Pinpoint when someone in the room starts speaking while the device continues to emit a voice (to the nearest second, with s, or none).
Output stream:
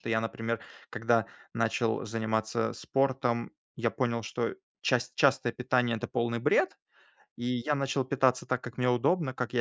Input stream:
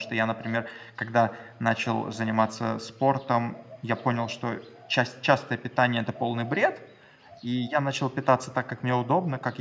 none